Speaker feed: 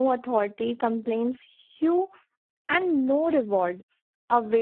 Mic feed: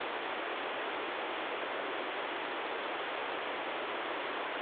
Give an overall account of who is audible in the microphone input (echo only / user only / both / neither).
neither